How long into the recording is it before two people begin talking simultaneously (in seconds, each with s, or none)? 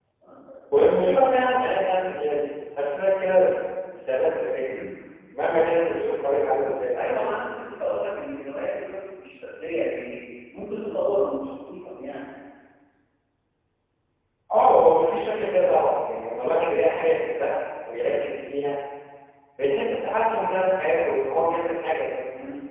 none